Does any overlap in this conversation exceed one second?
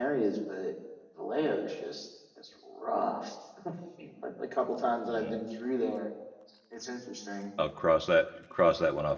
No

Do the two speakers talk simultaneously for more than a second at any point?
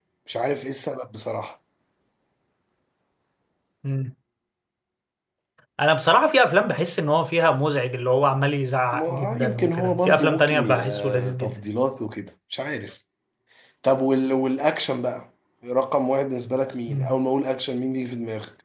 Yes, from 8.9 s

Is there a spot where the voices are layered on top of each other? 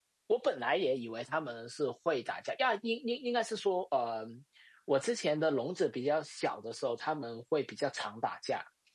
No

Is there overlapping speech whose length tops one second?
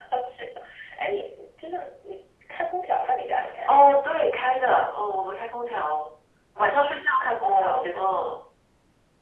No

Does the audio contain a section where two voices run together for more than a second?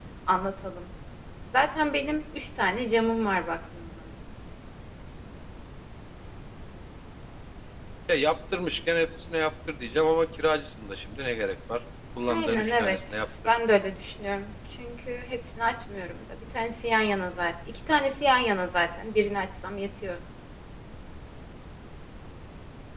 Yes, from 12.3 s

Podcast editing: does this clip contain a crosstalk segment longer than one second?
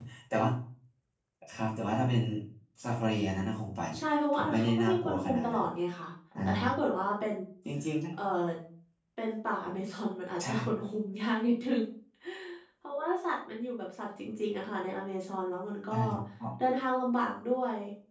Yes, from 4.3 s

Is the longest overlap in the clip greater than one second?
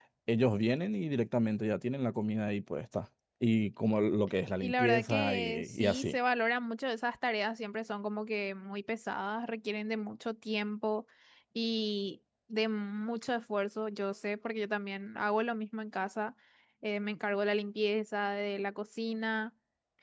Yes, from 4.6 s

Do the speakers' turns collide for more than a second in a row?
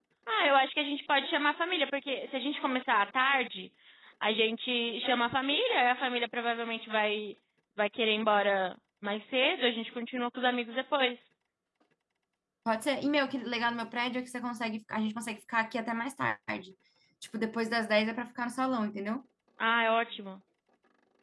No

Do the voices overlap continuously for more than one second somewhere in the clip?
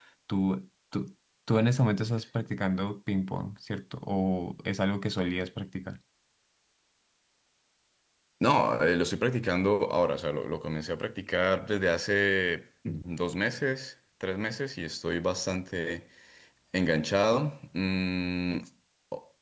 No

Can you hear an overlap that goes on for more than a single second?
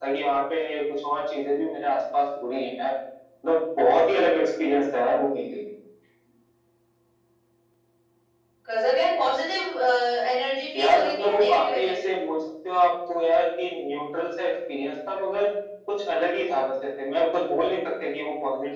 Yes, from 10.8 s

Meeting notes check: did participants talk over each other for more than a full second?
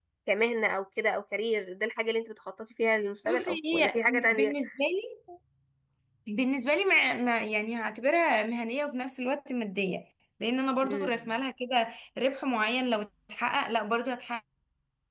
Yes, from 3.2 s

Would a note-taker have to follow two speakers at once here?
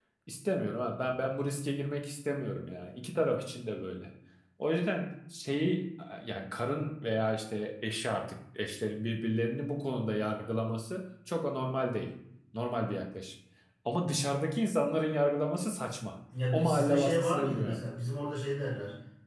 Yes, from 16.3 s

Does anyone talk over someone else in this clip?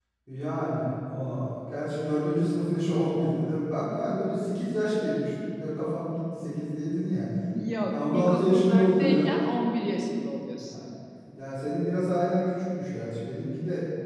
Yes, from 7.9 s

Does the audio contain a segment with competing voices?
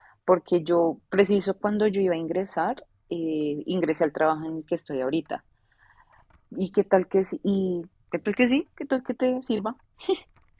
No

